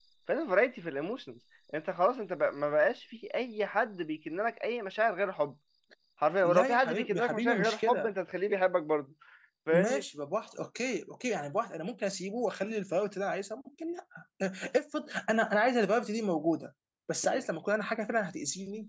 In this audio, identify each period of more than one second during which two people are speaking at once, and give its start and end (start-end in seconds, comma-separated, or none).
6.4-8.1